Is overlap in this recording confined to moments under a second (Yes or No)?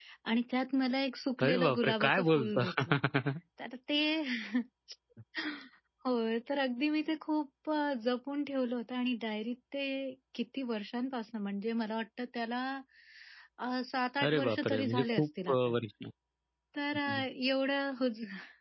No